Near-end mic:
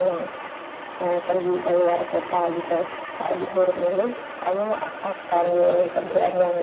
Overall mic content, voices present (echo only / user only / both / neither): both